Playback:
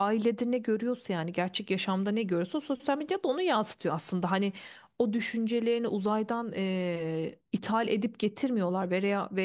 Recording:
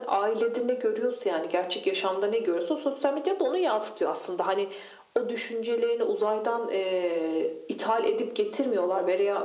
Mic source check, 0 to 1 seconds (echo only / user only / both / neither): echo only